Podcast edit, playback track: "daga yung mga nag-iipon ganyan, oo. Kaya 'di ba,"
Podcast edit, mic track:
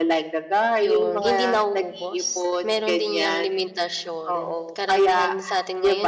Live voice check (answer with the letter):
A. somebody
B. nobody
A